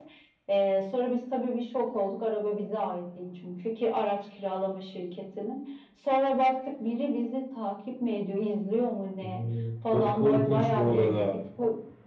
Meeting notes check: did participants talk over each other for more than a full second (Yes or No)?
Yes